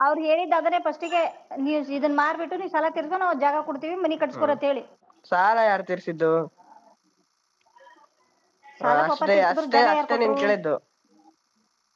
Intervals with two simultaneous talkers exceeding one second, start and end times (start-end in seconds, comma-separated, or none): 9.1-10.4